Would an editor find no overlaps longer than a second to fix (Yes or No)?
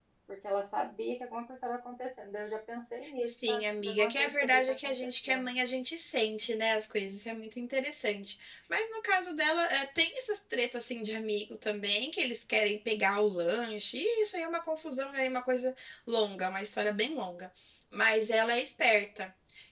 No